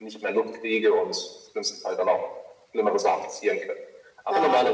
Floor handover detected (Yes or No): No